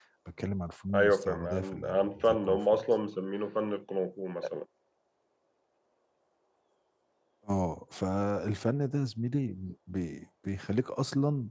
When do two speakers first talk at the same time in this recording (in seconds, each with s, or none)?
0.9 s